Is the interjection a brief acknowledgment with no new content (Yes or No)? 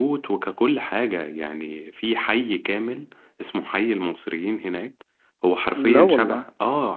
Yes